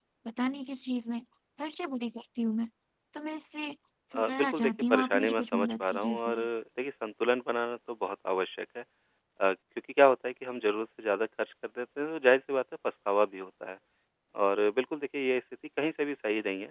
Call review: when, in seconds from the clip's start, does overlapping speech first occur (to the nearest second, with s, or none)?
4 s